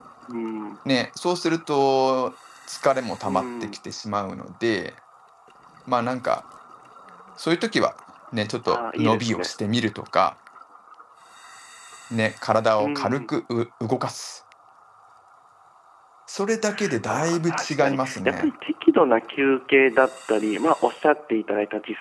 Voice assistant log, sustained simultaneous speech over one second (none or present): present